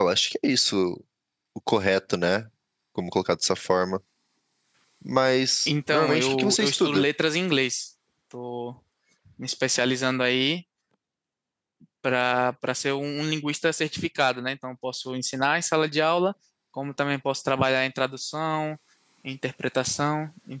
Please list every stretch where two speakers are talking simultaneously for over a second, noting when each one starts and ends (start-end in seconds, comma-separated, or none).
5.7-7.0